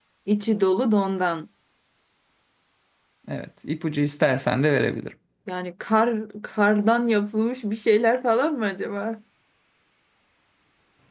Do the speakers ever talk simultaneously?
No

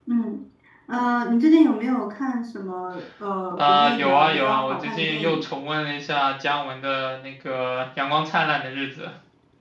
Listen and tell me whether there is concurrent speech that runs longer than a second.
Yes, from 3.5 s

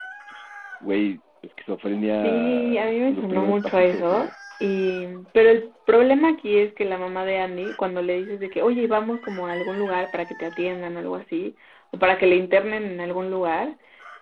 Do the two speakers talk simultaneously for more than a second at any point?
Yes, from 2.2 s

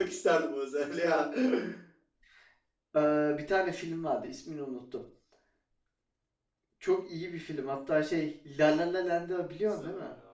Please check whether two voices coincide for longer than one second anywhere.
No

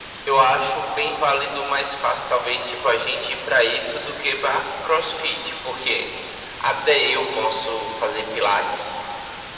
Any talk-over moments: No

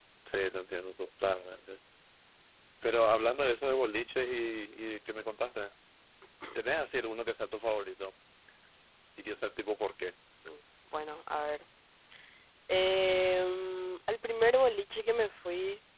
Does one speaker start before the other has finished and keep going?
No

